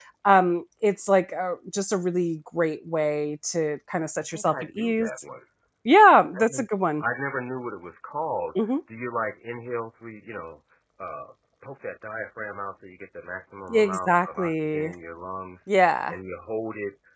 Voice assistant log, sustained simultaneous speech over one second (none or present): present